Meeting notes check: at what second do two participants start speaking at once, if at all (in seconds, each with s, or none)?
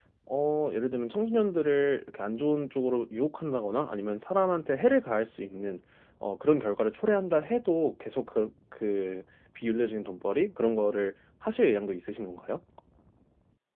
none